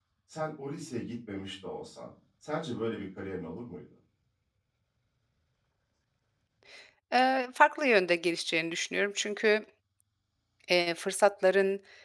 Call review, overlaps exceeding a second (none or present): none